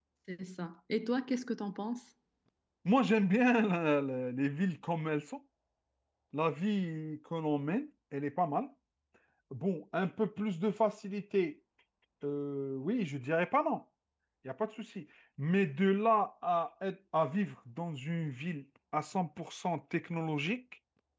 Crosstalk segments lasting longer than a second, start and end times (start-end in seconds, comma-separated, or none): none